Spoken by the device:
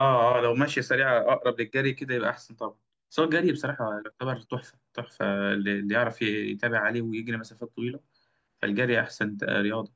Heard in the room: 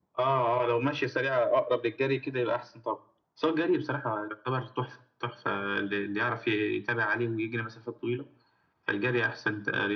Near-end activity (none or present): none